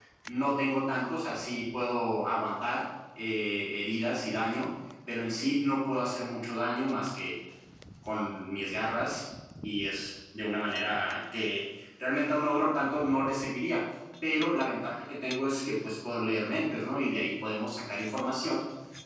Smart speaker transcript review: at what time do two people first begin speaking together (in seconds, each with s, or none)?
none